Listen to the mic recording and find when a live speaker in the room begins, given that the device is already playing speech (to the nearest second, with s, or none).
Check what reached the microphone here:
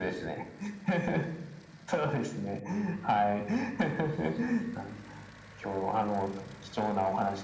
none